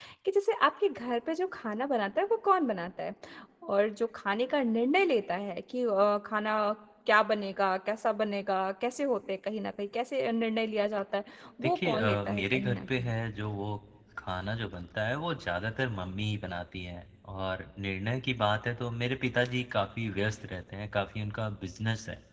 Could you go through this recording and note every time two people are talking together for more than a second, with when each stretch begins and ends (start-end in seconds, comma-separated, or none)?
11.6-13.1